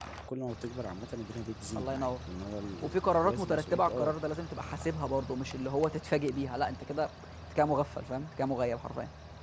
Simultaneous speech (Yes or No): Yes